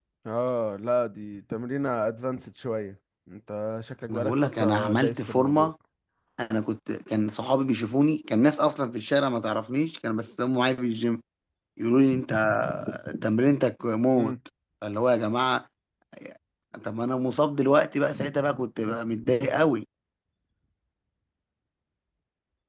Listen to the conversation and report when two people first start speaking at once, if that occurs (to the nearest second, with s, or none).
4 s